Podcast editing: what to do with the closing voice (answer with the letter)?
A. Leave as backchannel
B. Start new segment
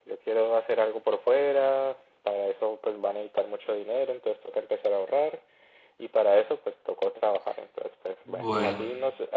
A